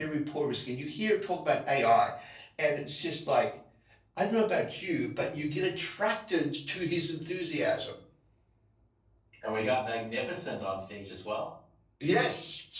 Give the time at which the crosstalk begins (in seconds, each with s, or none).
none